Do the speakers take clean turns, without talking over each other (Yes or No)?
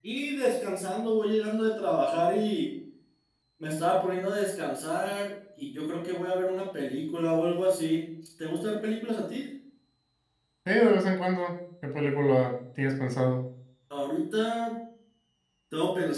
Yes